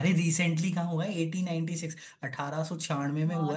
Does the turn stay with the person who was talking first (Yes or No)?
No